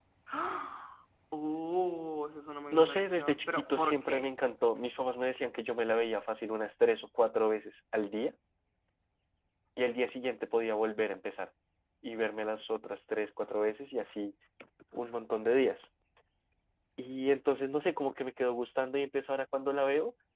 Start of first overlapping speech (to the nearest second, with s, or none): 3 s